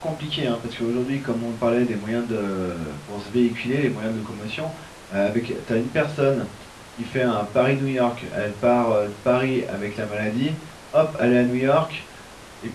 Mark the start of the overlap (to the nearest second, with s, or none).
none